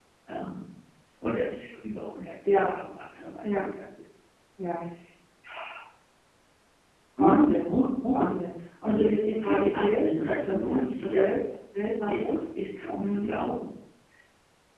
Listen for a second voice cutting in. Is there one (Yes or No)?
Yes